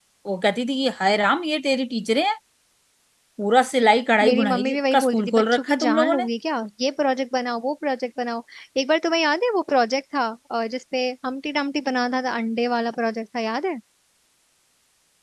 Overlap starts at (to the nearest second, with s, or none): 4 s